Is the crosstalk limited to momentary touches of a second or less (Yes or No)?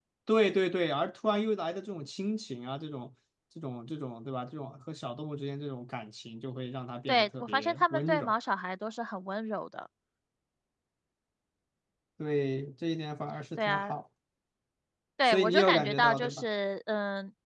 No